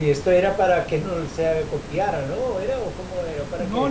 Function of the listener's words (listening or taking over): taking over